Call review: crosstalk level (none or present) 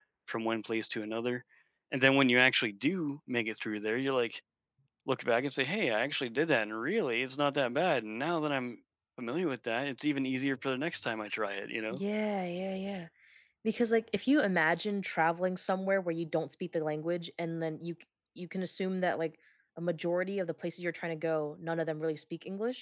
none